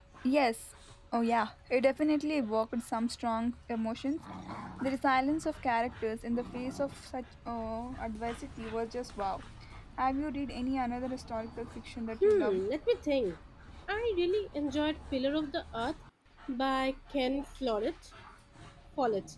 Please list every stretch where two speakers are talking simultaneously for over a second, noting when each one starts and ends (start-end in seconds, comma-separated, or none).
none